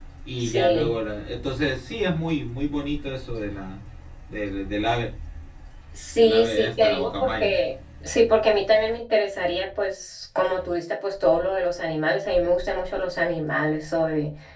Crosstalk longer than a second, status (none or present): present